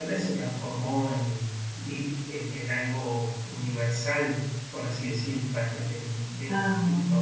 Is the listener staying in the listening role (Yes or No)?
Yes